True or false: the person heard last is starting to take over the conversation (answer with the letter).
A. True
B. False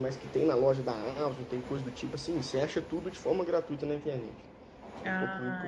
A